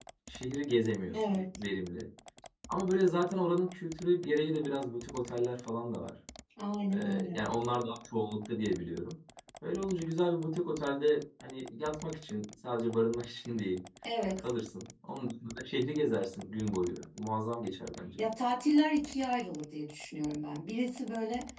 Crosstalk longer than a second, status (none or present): none